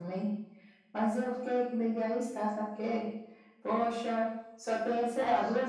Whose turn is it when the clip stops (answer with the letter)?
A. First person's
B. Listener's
A